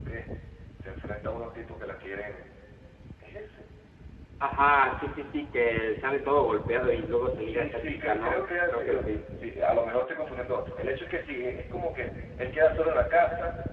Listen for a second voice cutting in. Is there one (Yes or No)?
Yes